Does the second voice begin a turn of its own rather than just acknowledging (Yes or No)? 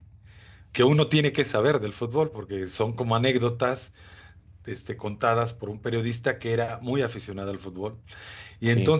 No